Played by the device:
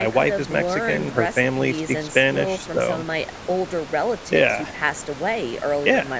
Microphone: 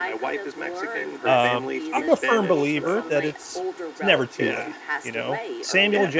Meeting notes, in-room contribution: present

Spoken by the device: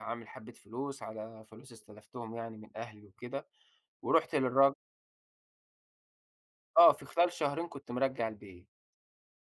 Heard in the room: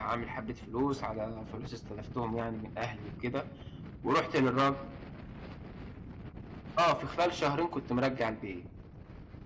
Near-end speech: none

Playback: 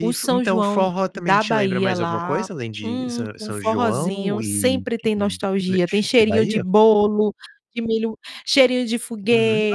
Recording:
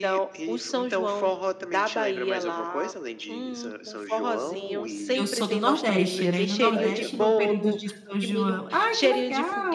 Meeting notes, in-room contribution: present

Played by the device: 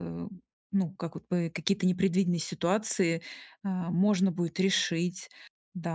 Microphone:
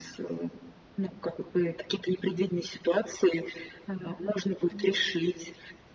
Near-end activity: present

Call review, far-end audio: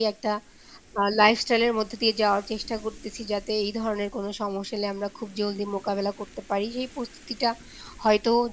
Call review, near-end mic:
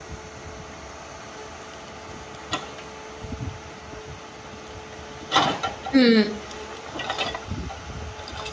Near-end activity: present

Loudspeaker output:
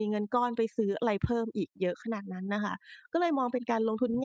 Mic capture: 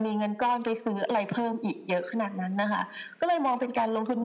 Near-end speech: none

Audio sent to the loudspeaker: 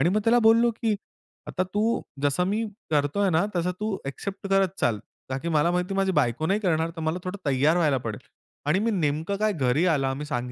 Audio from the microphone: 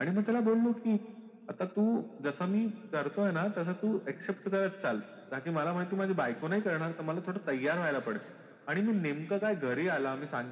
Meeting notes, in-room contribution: none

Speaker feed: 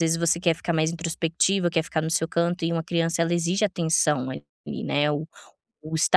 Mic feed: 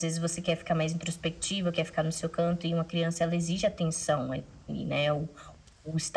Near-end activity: none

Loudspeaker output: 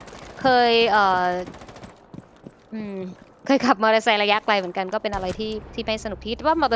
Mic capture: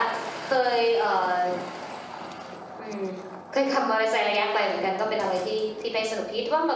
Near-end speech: none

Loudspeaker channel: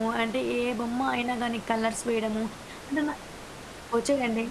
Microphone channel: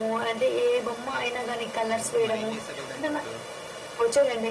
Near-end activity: present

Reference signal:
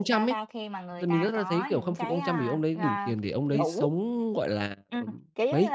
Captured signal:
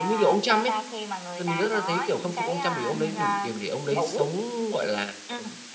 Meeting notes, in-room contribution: present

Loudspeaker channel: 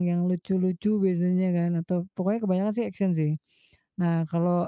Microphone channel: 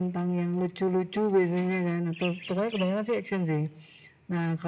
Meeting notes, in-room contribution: none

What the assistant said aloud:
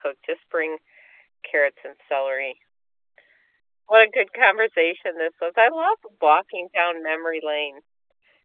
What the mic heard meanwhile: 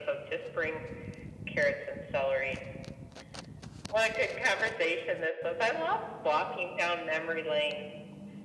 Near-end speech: none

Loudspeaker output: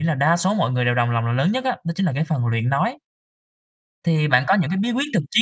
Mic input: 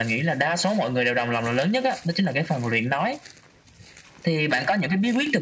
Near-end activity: none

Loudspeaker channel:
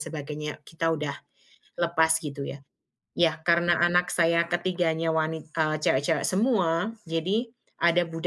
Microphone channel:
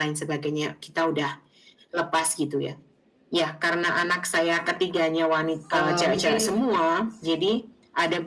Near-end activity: present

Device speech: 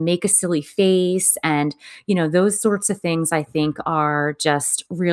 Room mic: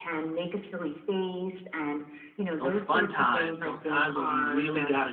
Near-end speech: present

